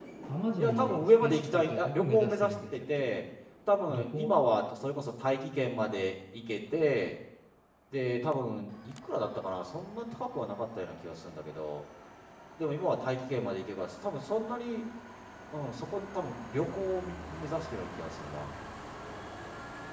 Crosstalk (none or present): present